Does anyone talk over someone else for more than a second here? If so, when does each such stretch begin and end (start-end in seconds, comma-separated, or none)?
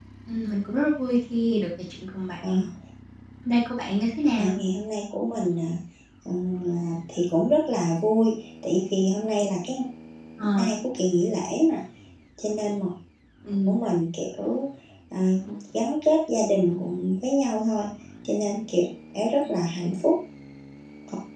none